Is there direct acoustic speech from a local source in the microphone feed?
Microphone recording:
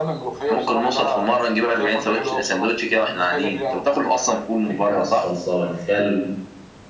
Yes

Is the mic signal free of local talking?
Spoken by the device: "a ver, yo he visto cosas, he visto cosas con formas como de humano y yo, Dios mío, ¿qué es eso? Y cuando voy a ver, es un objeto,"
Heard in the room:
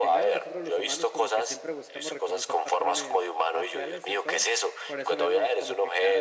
No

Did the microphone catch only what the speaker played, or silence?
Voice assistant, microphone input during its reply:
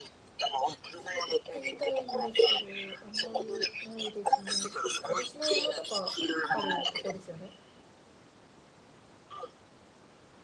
No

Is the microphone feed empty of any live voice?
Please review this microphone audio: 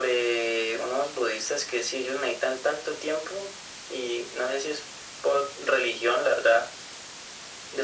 Yes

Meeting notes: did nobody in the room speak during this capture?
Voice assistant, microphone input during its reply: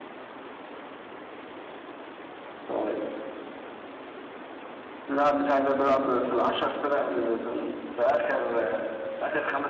Yes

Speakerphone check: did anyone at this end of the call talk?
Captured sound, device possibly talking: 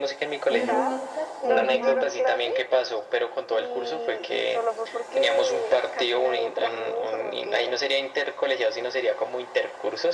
Yes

